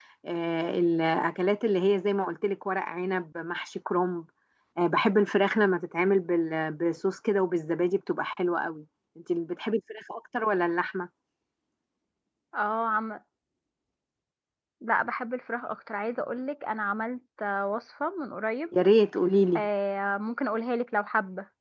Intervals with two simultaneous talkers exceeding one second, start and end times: none

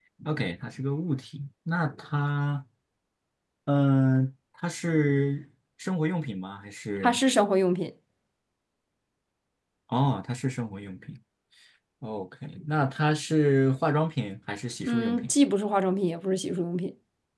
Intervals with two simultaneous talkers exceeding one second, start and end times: none

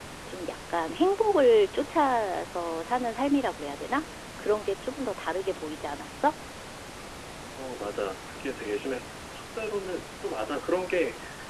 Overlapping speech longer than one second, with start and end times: none

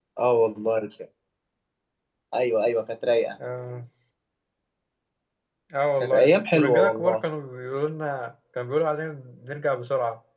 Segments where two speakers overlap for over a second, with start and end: 6.0-7.2

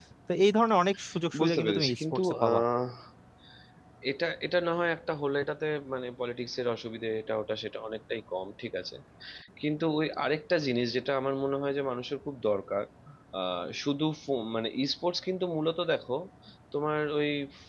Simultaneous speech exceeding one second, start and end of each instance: 1.4-2.6

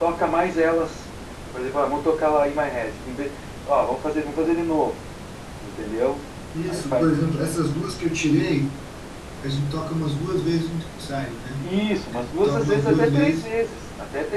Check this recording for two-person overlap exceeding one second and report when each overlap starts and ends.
12.1-13.5

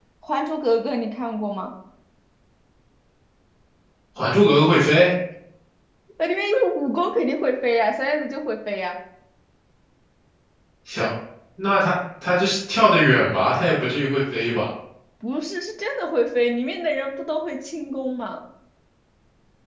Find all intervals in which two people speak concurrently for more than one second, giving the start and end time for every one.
none

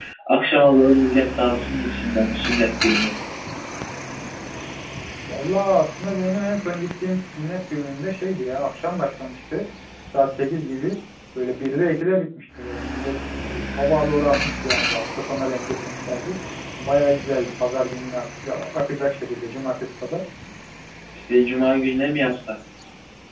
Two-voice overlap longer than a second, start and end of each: none

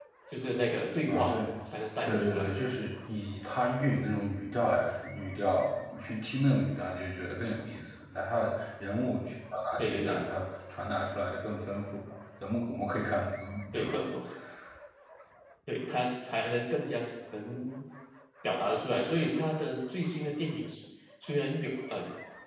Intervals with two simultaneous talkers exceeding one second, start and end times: none

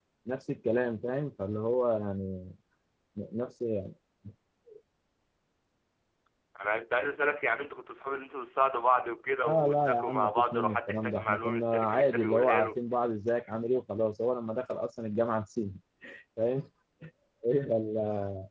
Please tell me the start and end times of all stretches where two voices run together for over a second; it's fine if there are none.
9.4-12.8

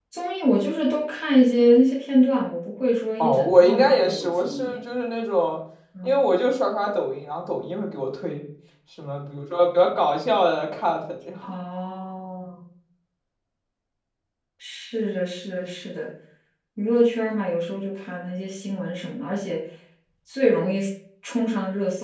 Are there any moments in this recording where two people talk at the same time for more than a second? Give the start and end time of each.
3.2-4.8

